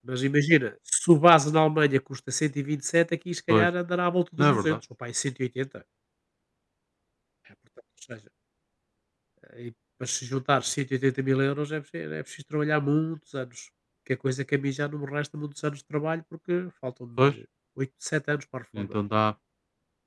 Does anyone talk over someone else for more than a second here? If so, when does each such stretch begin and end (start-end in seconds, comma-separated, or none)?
none